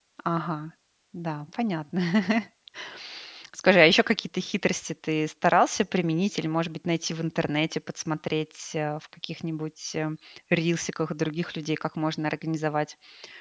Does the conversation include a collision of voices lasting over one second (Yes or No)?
No